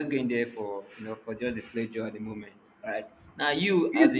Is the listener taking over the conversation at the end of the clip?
Yes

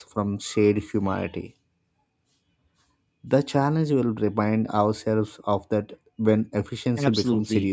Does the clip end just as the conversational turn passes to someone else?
Yes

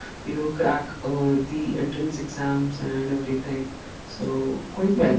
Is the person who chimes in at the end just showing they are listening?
Yes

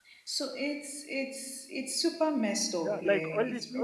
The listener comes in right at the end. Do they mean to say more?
Yes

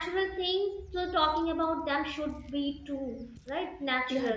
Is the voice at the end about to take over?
Yes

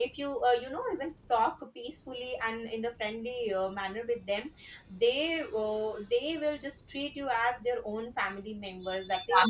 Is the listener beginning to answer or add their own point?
Yes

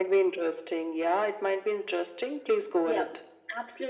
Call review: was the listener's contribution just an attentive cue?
No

